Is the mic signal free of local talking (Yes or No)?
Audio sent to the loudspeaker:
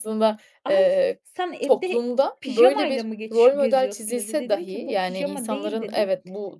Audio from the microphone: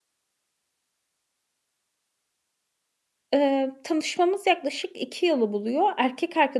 No